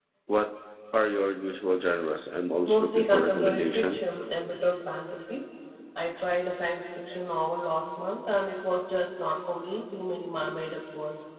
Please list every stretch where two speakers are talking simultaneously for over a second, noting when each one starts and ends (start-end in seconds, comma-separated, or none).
2.6-4.0